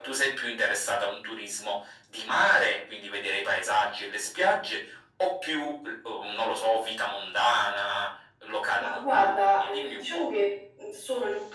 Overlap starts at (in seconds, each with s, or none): 8.8 s